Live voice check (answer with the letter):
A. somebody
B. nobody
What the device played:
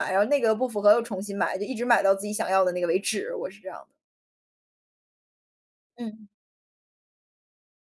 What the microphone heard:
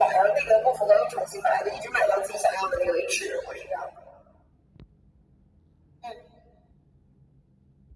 B